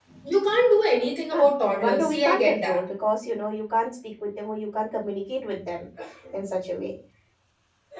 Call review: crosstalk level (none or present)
present